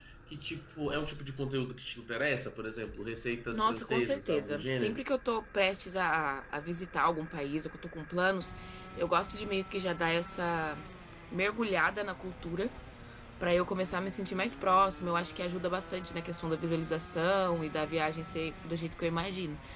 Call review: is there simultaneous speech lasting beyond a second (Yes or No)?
Yes